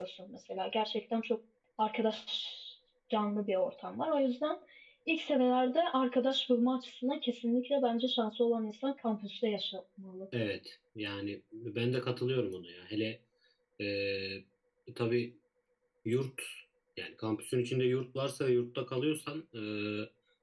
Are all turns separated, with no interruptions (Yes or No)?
Yes